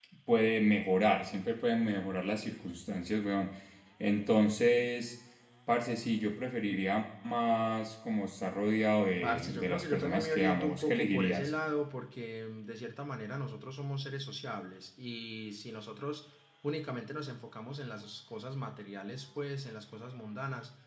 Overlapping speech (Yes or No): Yes